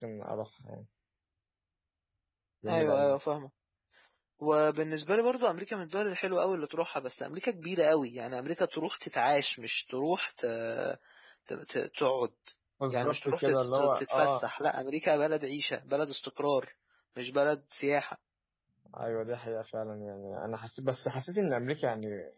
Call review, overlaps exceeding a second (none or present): present